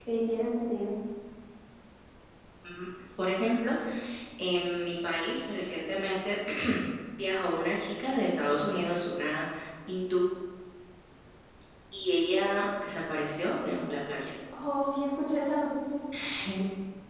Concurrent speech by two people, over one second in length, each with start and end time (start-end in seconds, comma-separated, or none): none